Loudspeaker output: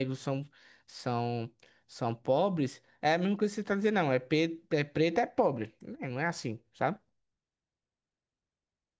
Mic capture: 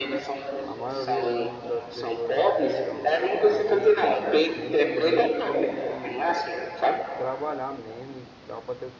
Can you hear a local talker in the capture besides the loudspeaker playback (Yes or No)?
Yes